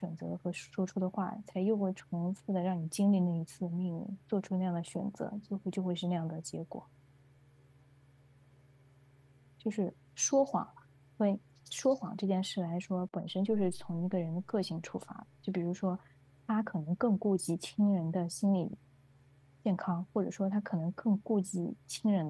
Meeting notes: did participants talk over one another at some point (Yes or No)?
No